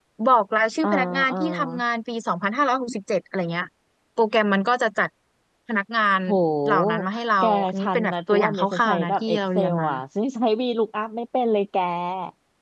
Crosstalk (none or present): present